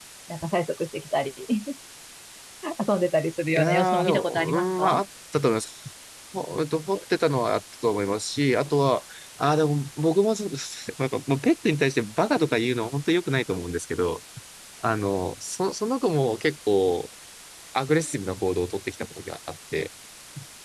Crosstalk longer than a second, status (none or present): present